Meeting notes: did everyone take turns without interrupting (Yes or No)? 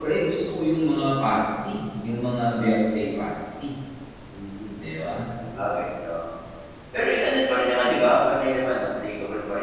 Yes